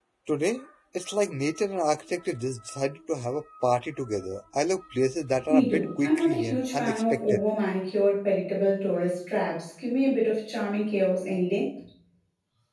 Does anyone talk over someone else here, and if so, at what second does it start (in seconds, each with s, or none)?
5.5 s